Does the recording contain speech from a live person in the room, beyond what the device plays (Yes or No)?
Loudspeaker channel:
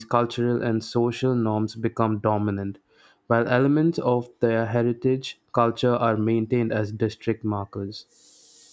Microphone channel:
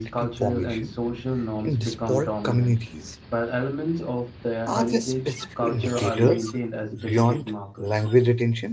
Yes